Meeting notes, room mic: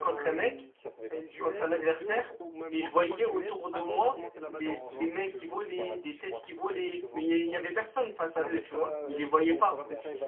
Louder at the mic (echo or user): user